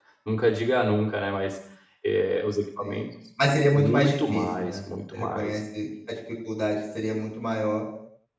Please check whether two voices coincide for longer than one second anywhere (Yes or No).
Yes